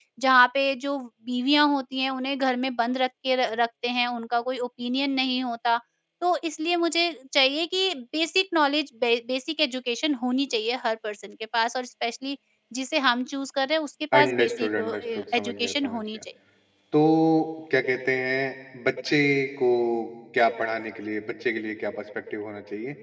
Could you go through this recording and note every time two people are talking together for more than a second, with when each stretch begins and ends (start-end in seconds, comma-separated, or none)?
14.2-16.2